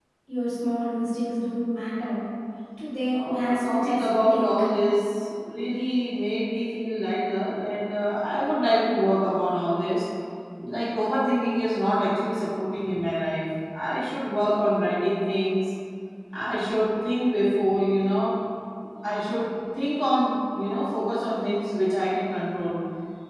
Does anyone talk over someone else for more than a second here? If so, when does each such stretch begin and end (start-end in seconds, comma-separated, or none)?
3.1-4.5